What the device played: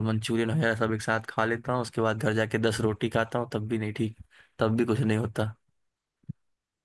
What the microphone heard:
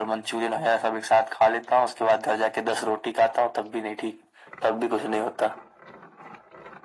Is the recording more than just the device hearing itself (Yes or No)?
No